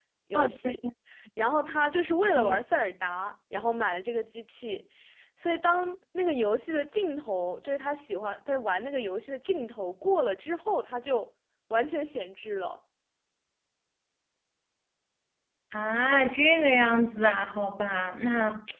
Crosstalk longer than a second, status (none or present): none